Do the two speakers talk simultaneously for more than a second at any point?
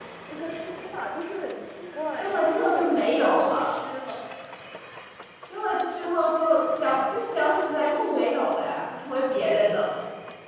Yes, from 2.2 s

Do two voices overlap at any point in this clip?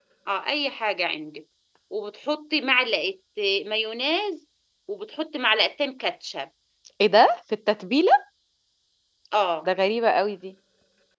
No

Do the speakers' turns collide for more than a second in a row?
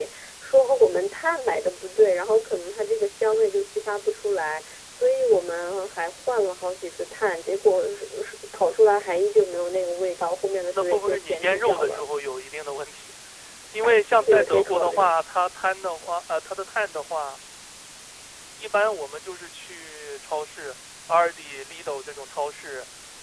Yes, from 10.7 s

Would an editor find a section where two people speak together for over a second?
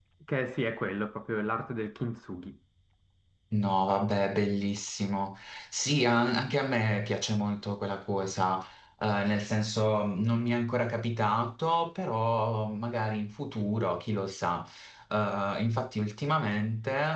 No

